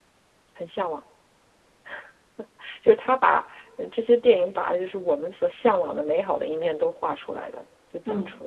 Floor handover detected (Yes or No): Yes